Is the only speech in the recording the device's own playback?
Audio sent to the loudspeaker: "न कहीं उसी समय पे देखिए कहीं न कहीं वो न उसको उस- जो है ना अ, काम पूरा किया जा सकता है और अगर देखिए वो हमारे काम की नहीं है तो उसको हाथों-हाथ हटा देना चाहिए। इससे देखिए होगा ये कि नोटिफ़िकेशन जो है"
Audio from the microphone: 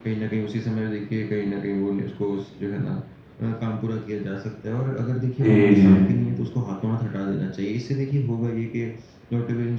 No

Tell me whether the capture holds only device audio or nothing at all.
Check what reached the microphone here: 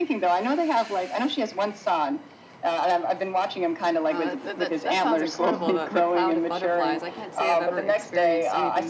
No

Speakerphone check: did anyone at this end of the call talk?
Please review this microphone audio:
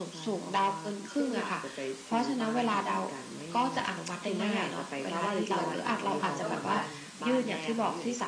Yes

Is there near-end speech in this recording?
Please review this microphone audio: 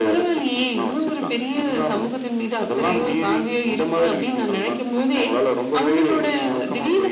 No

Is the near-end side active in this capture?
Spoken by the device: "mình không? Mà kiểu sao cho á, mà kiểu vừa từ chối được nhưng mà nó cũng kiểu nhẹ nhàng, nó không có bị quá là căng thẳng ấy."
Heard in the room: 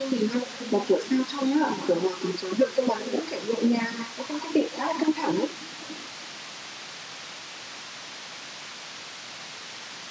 No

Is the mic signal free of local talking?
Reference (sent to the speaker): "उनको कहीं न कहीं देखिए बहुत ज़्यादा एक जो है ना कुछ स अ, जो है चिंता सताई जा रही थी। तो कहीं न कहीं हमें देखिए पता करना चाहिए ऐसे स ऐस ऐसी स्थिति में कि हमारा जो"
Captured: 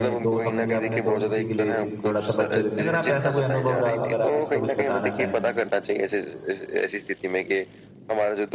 No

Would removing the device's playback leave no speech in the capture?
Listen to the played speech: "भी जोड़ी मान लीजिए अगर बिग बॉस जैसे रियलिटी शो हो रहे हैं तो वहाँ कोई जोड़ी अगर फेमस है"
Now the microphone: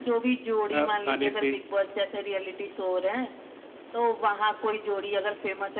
No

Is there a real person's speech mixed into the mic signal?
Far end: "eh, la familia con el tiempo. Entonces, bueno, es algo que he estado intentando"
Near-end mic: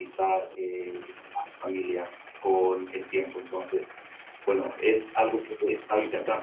No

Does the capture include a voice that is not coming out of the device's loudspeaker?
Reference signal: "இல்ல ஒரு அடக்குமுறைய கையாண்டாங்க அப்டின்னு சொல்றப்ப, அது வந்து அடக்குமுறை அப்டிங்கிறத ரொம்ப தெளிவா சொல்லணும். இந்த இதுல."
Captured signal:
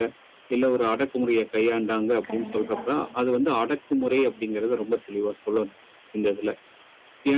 Yes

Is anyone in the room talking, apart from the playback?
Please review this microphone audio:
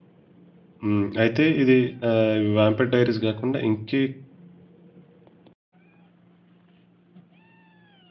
Yes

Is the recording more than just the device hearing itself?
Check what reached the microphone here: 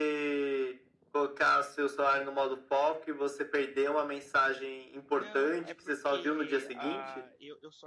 Yes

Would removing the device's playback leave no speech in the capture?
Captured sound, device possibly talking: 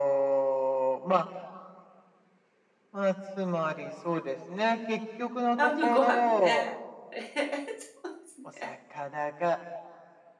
No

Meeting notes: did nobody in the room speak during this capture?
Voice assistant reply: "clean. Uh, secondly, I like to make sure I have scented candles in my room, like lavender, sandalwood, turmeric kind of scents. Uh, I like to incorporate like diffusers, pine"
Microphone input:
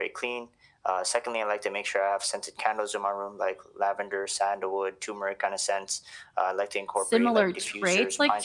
No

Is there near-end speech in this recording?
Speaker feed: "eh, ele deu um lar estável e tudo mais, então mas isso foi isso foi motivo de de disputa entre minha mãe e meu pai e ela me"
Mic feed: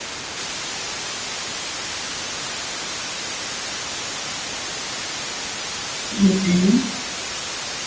Yes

